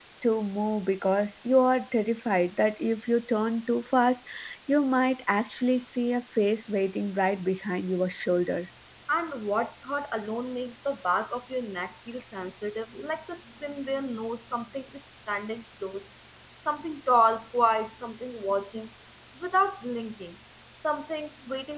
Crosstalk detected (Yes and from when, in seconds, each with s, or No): No